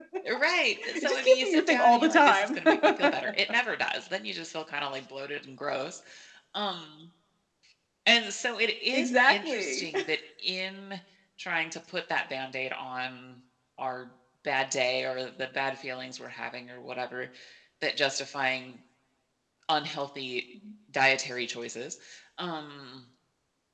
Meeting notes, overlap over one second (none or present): present